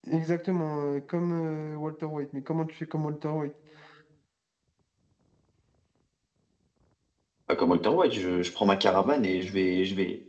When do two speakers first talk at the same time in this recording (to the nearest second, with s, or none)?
none